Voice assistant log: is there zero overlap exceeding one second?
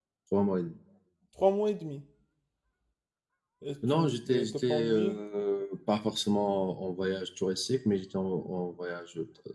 No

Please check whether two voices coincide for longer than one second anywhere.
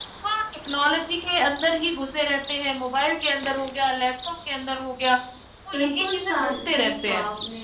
Yes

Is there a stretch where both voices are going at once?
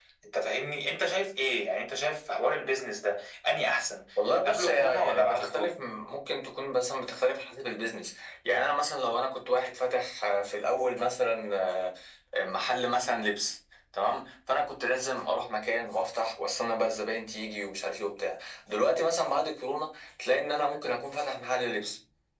Yes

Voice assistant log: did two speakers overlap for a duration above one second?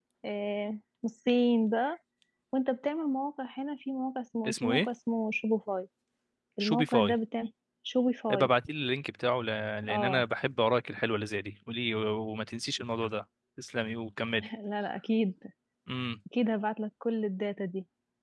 No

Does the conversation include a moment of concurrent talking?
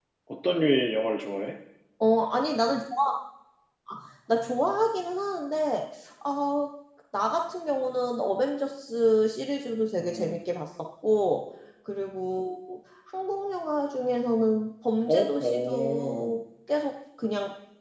Yes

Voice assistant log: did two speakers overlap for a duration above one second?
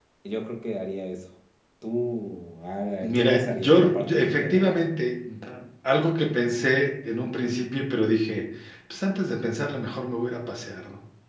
Yes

